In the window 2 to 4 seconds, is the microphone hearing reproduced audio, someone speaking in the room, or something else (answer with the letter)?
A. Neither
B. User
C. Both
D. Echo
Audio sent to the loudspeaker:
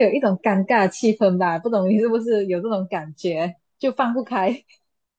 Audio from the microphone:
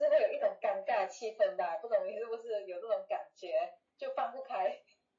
D